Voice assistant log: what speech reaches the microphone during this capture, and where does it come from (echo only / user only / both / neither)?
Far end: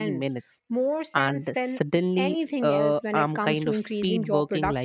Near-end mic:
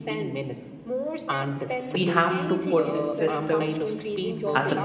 both